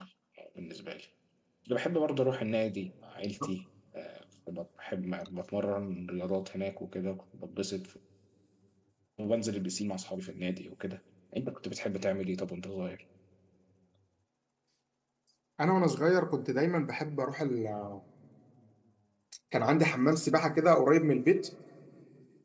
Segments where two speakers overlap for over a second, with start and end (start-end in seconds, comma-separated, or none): none